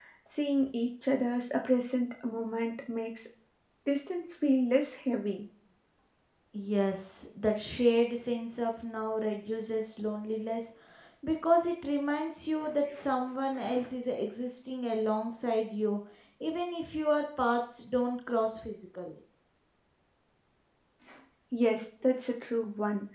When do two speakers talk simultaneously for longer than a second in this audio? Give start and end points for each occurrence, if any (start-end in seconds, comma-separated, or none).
none